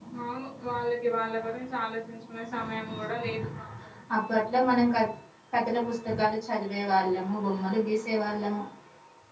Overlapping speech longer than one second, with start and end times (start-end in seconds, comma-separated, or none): none